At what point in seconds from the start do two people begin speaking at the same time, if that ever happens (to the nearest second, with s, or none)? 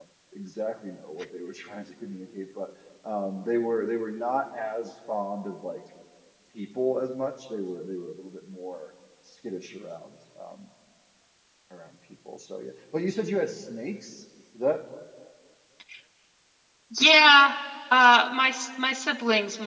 none